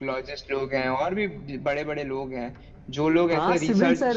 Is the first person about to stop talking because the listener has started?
Yes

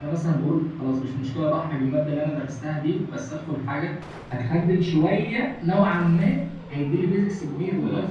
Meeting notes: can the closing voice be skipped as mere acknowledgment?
Yes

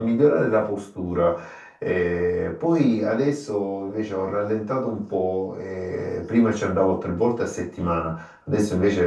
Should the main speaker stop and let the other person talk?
No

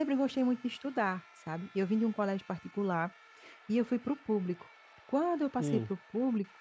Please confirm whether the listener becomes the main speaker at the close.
No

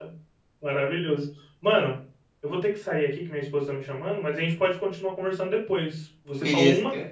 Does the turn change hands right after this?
No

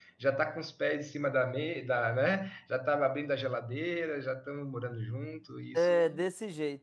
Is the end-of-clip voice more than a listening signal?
Yes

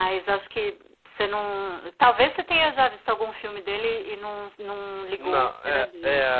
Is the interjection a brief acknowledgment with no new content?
No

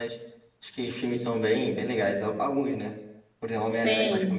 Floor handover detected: No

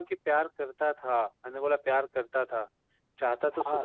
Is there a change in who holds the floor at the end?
No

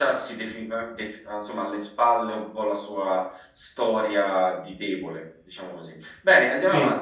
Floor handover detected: No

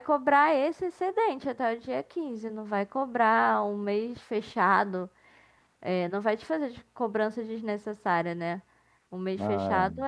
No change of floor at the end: Yes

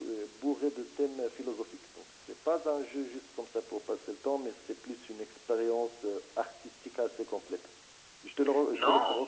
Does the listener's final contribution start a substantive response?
Yes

